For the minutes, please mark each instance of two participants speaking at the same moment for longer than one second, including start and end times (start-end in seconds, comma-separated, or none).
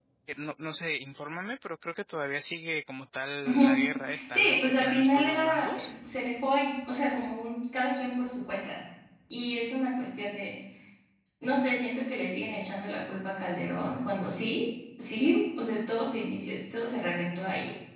4.3-5.9